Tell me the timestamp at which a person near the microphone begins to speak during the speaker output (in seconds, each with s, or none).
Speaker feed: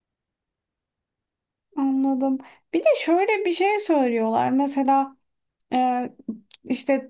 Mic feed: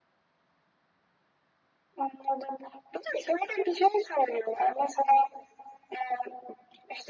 none